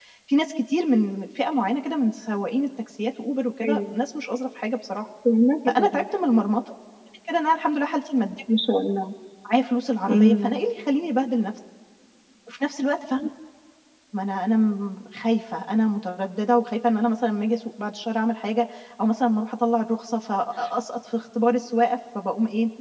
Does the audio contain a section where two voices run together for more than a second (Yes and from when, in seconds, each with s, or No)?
No